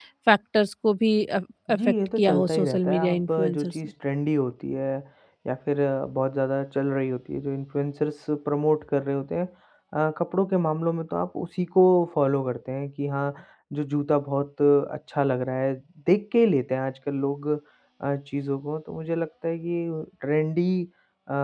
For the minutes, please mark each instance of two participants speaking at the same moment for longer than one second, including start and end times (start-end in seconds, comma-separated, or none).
1.7-3.8